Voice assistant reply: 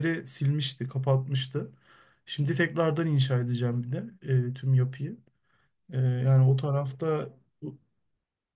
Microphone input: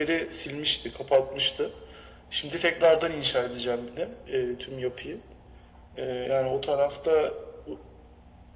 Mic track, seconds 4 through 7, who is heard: echo only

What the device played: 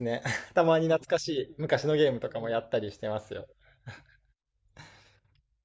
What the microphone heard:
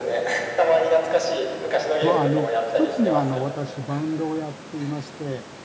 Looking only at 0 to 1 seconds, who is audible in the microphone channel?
echo only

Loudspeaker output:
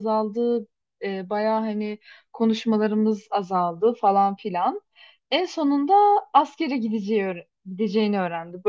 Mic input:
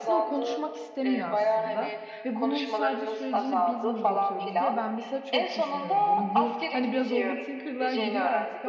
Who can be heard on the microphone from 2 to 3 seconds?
both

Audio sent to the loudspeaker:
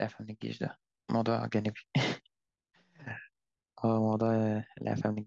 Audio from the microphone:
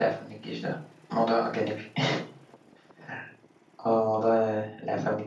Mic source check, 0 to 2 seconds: echo only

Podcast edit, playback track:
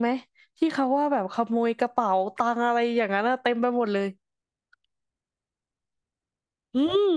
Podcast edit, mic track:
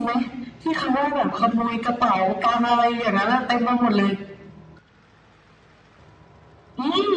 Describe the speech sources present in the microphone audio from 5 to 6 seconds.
neither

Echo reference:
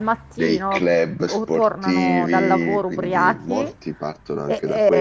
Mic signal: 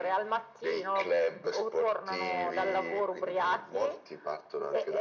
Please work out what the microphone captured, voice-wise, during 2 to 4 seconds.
echo only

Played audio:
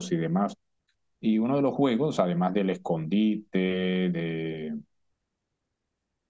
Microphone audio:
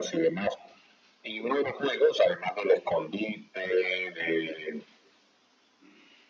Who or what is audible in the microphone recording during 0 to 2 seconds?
echo only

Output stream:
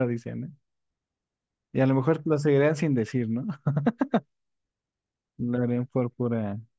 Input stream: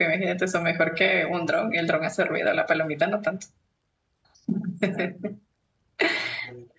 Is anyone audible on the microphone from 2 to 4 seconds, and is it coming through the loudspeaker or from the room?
user only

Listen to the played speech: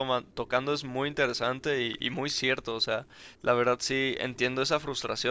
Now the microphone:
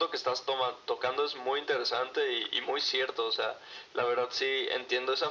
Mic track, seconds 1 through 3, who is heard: echo only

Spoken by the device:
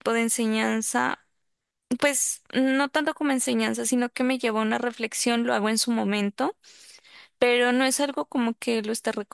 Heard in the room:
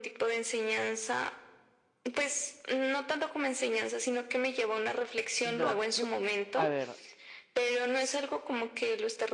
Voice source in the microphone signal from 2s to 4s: echo only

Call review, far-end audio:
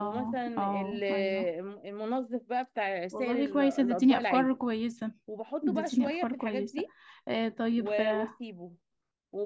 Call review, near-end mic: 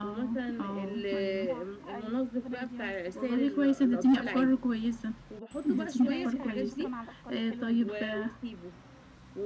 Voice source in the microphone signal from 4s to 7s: both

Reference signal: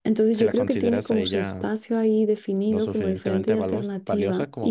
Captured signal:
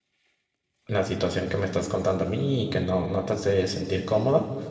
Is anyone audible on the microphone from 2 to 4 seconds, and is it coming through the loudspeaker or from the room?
user only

